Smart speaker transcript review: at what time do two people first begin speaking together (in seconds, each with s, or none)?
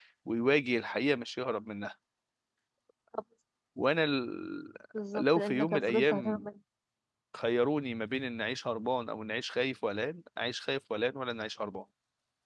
5.2 s